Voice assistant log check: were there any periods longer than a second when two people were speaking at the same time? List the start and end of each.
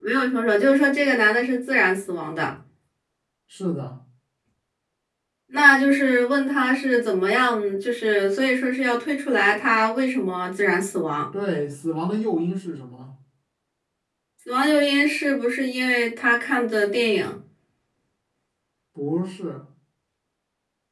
none

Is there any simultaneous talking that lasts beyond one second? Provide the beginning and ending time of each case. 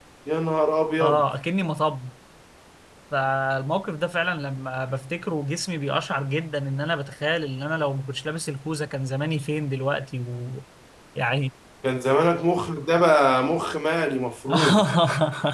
none

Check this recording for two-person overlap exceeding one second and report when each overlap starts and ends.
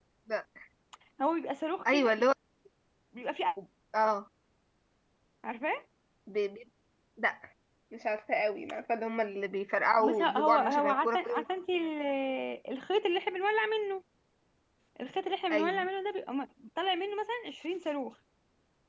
10.0-11.4

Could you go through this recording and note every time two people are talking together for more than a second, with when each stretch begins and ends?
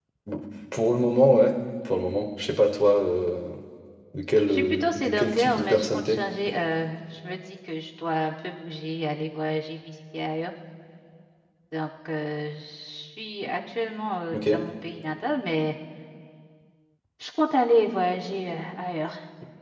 4.5-6.2

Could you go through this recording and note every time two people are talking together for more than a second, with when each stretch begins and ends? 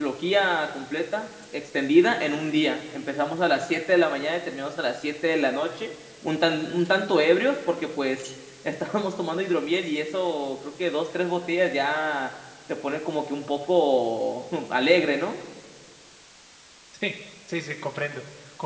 none

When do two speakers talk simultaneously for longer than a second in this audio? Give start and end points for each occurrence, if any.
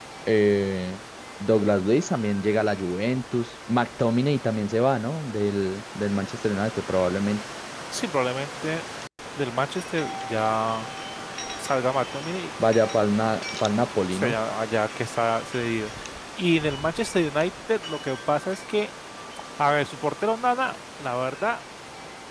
none

